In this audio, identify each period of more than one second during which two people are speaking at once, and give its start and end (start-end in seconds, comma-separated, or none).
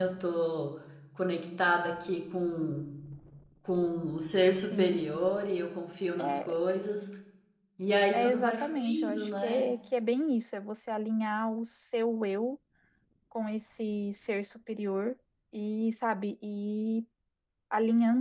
8.1-9.7